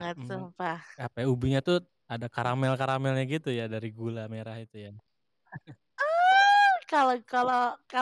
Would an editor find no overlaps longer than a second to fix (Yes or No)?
Yes